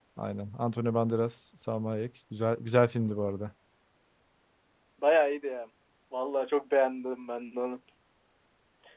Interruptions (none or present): none